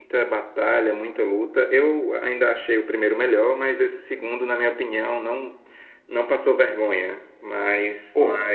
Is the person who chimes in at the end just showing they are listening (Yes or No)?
Yes